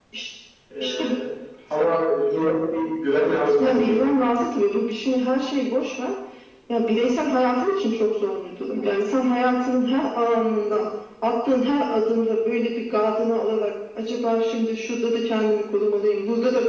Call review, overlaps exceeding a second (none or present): none